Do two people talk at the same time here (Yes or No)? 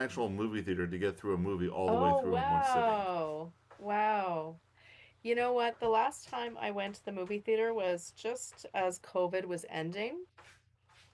Yes